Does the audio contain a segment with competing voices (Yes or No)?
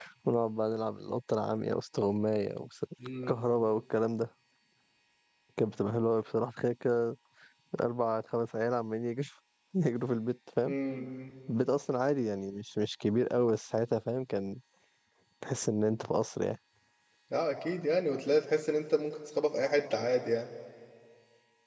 No